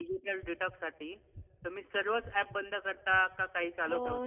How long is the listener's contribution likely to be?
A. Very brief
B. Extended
B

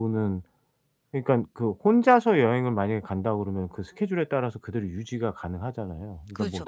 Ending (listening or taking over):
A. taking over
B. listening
B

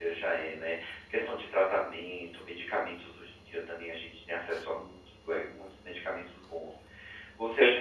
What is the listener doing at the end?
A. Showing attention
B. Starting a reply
A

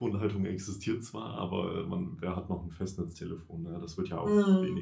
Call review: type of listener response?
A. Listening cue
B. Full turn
B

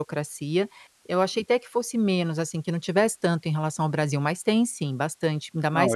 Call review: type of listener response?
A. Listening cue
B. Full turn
B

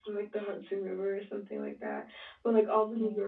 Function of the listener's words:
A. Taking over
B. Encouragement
B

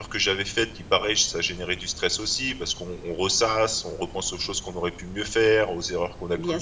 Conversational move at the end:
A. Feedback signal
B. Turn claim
A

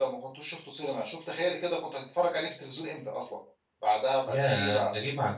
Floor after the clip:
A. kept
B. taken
B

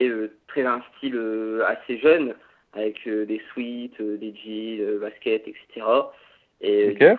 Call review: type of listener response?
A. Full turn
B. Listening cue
B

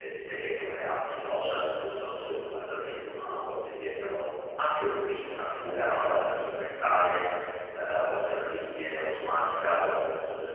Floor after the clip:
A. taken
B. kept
B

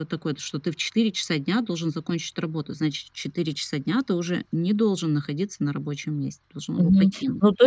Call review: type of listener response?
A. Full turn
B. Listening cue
A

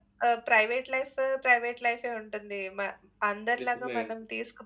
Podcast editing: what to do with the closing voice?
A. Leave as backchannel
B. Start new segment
A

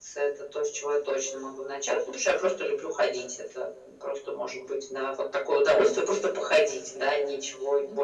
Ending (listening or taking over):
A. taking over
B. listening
A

